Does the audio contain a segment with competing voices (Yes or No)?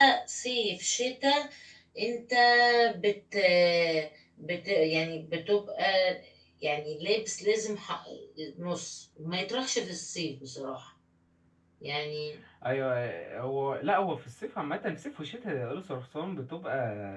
No